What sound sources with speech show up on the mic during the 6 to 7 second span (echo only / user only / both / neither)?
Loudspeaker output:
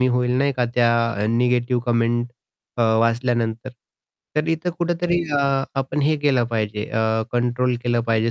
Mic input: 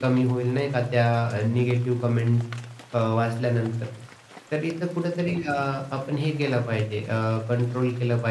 echo only